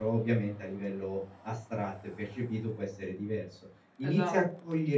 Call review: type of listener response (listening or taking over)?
listening